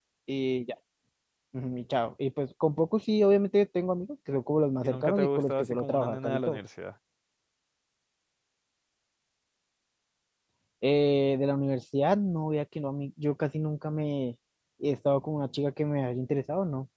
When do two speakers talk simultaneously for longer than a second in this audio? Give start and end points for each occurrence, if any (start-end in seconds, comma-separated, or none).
4.8-6.6